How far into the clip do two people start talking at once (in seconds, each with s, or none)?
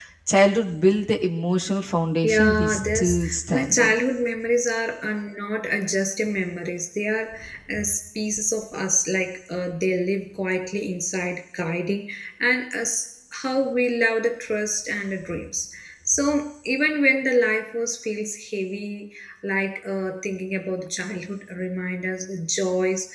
2.2 s